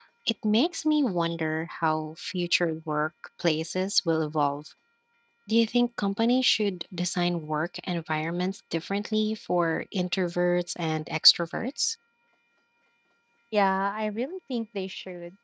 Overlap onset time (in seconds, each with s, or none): none